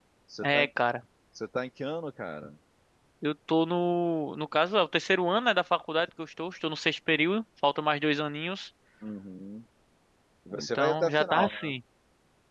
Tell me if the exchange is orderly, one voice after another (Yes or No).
No